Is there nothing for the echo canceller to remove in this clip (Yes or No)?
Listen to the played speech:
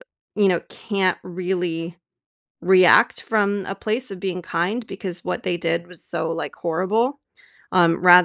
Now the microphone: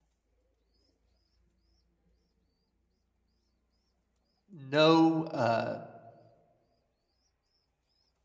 Yes